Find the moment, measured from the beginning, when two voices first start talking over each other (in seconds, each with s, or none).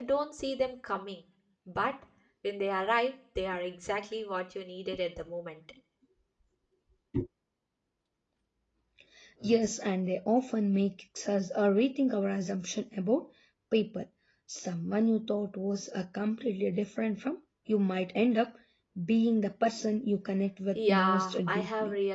20.8 s